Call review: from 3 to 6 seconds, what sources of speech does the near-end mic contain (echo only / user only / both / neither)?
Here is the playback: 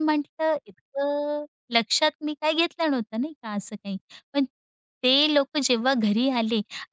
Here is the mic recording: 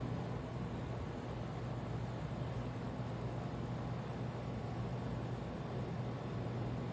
neither